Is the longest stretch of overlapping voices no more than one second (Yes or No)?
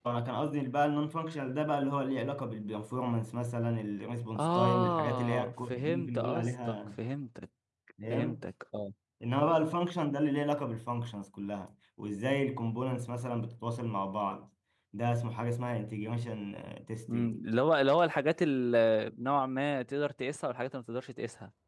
No